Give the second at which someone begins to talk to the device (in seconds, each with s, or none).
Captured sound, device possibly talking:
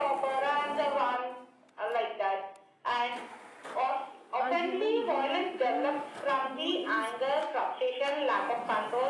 4.4 s